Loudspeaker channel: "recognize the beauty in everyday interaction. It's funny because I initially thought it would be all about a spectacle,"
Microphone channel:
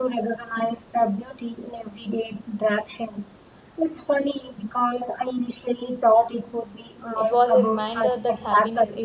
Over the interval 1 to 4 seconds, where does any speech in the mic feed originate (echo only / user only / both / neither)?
echo only